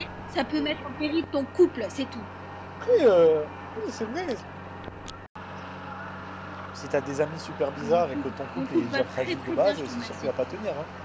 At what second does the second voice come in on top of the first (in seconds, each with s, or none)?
7.8 s